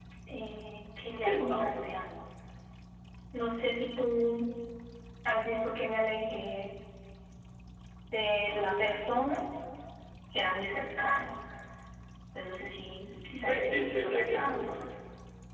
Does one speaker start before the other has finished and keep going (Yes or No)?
Yes